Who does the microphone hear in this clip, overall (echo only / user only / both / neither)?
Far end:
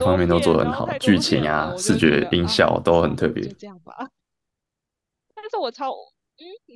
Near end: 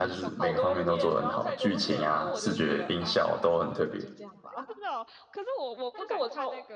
both